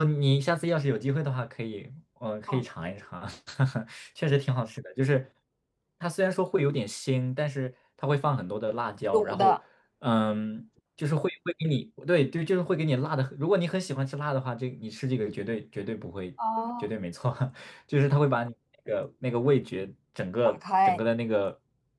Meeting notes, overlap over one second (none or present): none